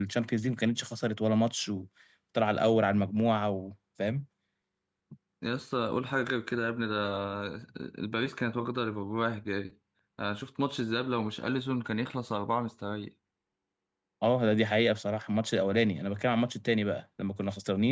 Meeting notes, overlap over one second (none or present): none